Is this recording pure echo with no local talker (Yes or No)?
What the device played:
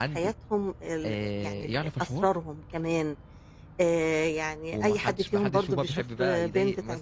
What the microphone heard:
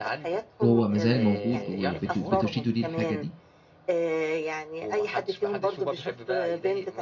No